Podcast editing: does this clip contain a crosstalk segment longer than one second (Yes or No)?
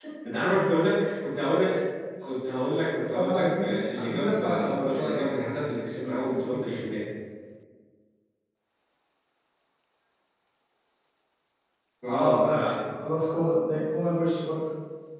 Yes